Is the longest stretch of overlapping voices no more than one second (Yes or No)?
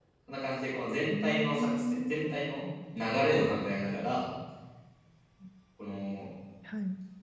No